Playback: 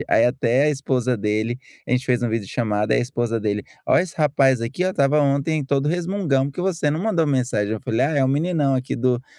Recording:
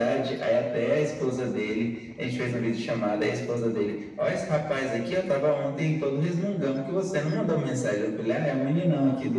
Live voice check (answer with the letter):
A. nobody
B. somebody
A